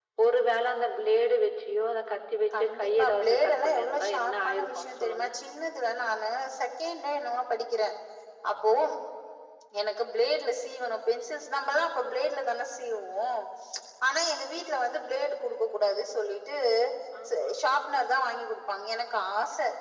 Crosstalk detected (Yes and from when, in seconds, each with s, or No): Yes, from 2.5 s